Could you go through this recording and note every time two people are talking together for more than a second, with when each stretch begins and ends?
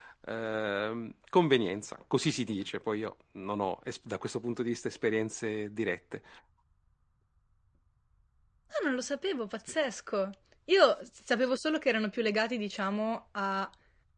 none

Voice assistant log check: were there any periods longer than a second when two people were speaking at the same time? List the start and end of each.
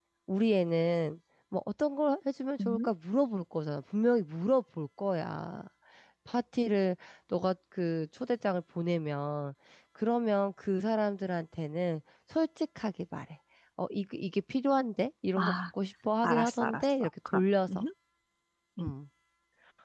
16.2-17.8

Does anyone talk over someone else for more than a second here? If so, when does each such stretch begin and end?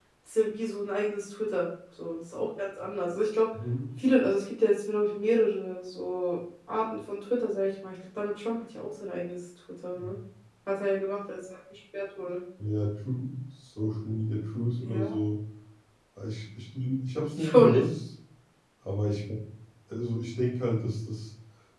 none

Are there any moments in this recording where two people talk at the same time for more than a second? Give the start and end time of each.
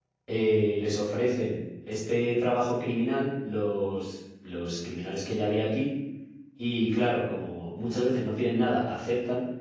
none

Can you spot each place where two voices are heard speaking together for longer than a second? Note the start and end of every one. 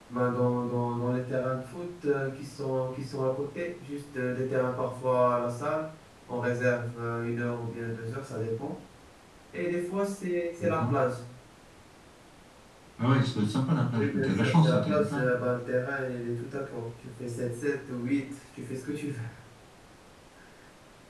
13.9-15.2

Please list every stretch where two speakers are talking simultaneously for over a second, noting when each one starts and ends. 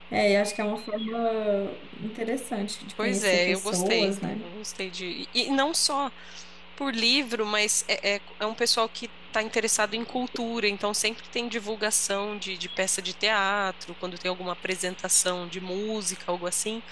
3.0-4.4

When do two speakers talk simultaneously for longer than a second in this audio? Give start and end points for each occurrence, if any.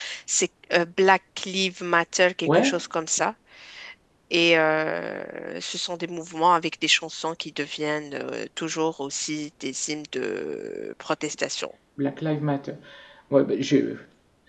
none

